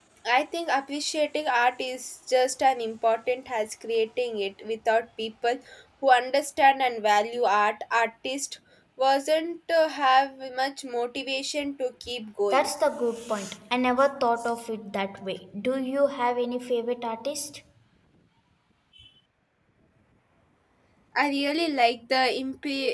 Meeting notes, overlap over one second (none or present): none